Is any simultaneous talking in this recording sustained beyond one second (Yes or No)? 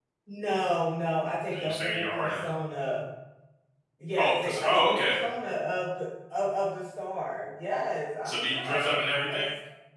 Yes